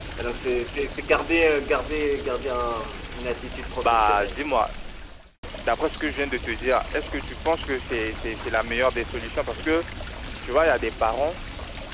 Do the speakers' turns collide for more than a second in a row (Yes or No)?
No